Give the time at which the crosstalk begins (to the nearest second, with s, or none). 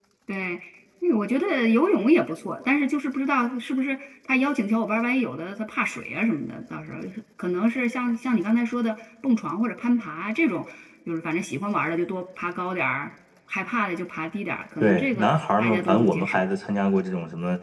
15 s